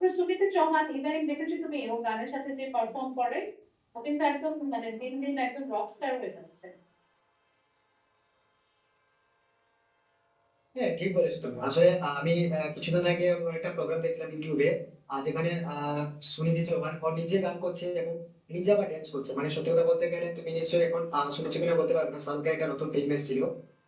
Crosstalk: none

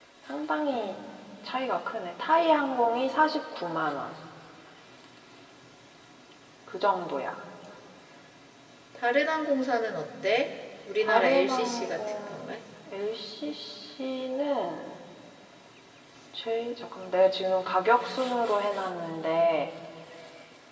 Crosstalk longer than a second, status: present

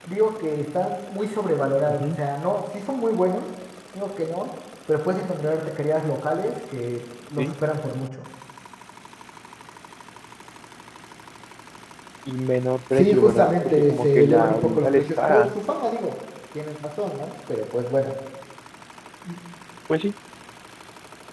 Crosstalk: present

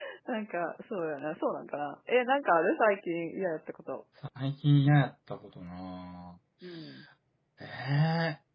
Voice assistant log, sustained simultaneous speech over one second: none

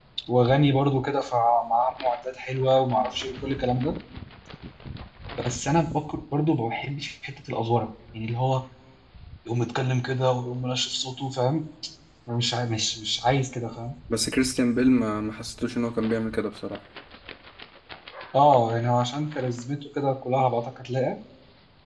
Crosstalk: none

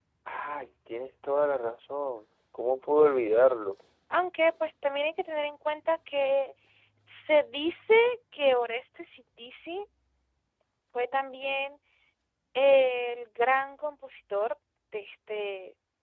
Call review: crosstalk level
none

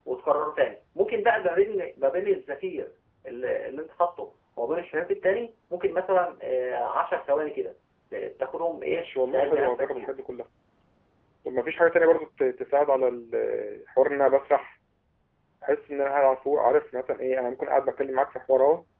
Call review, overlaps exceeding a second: present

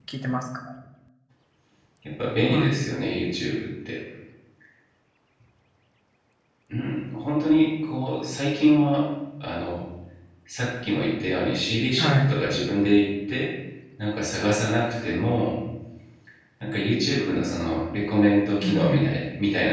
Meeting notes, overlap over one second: none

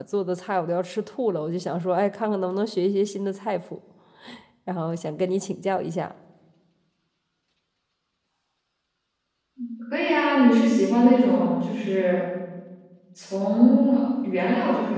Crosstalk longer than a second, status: none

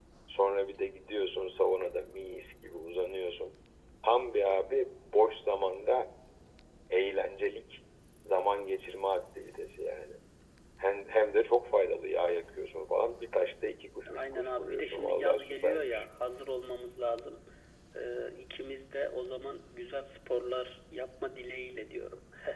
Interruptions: present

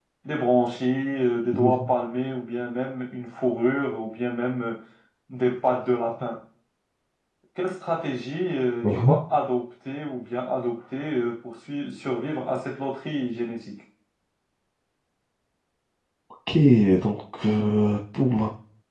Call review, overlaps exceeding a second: none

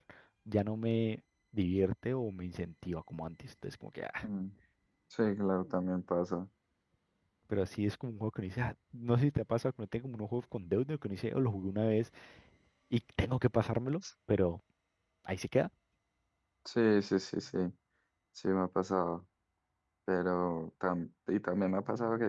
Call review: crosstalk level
none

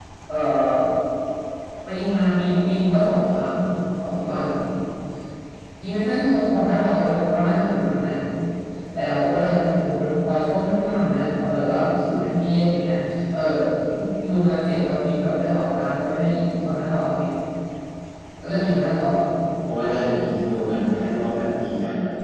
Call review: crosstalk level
none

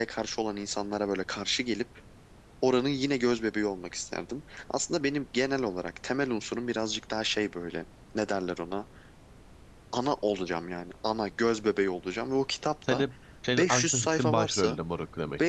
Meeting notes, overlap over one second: present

